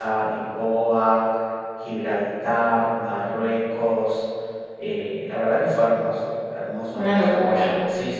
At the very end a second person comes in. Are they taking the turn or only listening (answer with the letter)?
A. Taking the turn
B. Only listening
B